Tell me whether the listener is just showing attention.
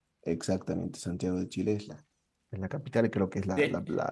Yes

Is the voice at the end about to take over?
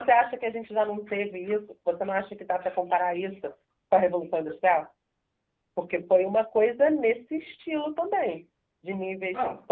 No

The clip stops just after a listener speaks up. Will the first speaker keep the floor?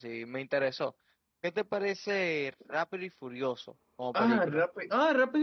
No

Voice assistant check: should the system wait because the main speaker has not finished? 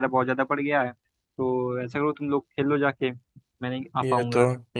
No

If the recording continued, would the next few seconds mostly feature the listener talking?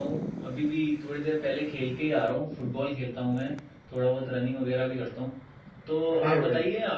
No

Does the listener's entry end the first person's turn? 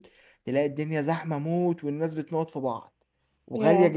No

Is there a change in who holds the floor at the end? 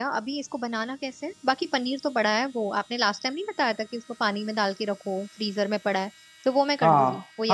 Yes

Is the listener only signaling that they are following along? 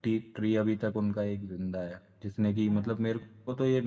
Yes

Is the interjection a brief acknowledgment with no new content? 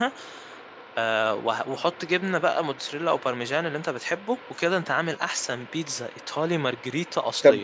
No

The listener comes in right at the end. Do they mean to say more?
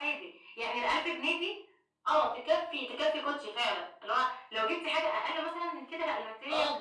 Yes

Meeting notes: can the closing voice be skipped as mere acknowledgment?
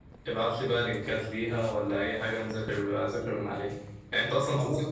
Yes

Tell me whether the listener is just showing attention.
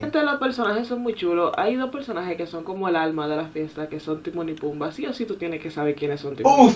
No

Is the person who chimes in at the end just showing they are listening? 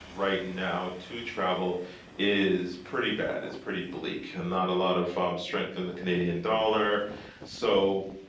Yes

